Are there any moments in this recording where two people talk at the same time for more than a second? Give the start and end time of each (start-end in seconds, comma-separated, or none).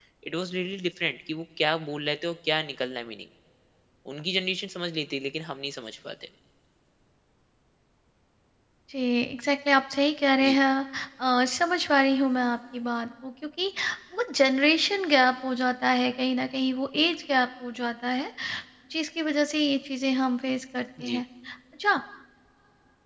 none